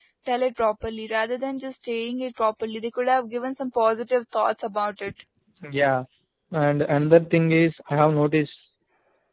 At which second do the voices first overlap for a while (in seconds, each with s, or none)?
none